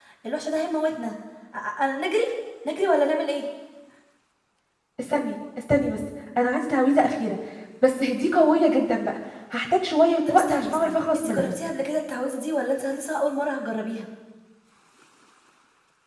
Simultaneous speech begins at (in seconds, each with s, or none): 10.3 s